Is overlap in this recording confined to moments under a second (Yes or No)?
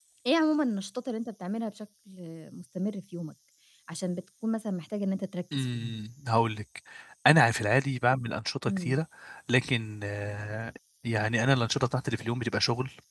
Yes